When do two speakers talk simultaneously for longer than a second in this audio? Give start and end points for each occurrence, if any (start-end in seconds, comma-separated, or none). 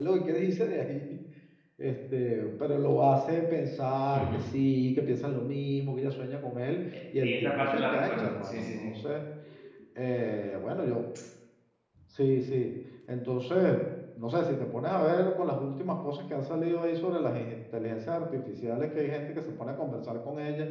7.2-8.9